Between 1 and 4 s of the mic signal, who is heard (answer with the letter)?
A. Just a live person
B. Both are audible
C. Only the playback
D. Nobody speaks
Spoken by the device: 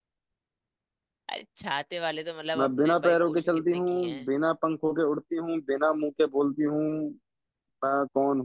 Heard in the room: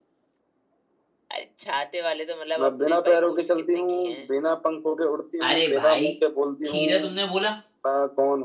C